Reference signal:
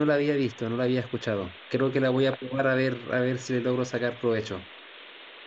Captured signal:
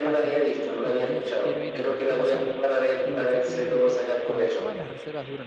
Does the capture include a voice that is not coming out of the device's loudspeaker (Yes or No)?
Yes